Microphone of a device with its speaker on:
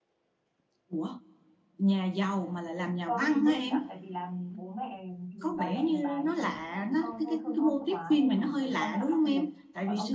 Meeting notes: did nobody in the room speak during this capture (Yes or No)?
No